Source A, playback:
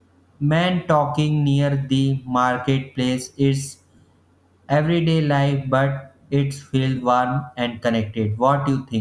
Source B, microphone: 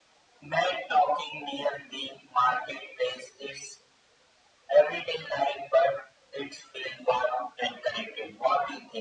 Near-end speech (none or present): none